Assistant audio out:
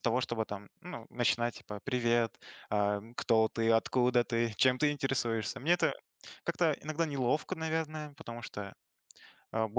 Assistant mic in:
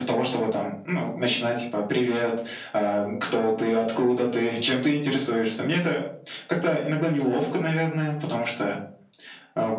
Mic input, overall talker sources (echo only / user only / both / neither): echo only